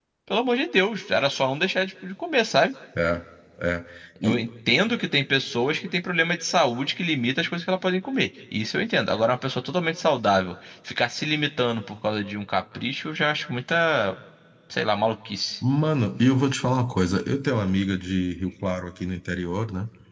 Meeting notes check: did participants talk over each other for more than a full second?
No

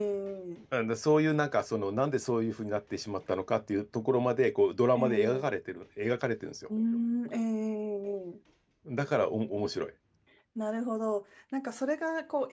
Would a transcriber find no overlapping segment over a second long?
Yes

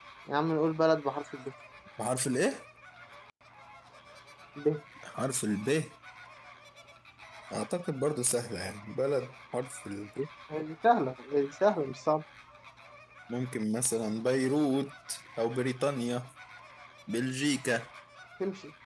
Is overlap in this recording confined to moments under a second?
Yes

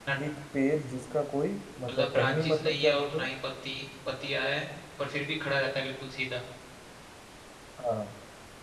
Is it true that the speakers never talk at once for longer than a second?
No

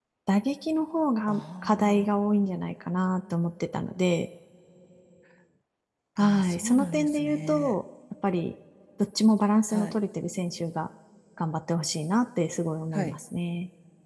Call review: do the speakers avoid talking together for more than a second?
No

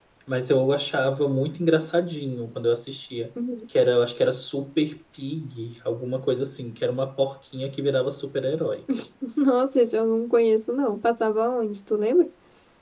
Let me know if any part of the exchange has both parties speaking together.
No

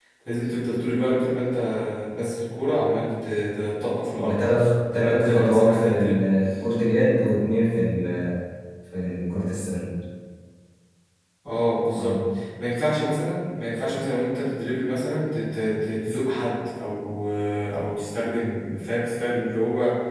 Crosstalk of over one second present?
Yes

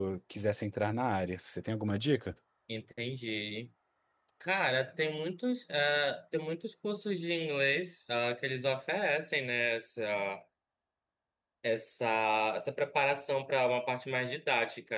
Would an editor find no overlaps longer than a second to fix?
Yes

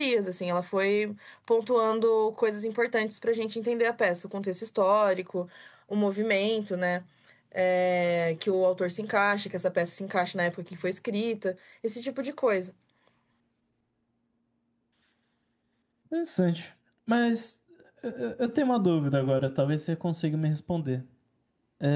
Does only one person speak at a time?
Yes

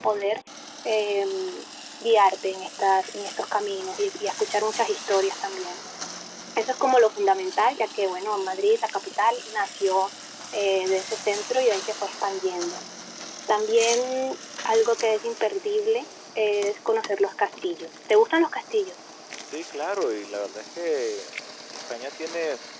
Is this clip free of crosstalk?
Yes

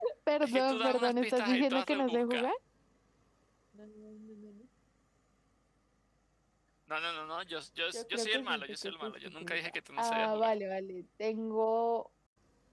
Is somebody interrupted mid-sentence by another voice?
Yes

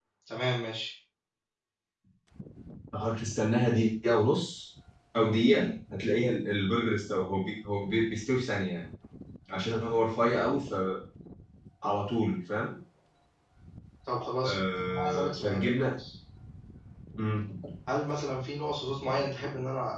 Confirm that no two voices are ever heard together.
No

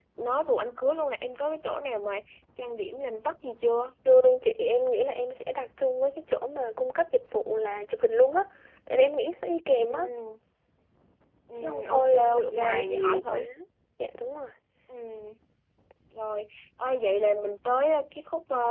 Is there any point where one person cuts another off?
Yes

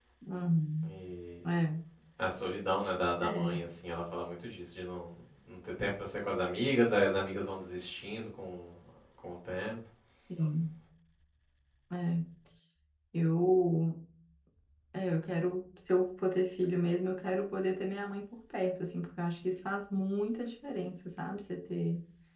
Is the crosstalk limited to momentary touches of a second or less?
Yes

